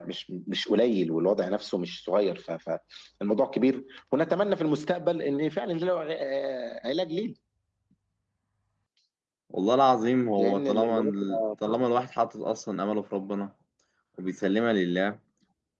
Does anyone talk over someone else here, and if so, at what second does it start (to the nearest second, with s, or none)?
10 s